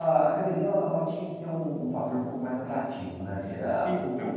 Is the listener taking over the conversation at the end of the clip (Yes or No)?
No